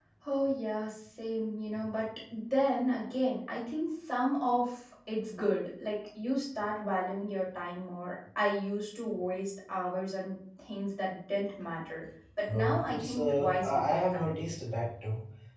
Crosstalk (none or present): present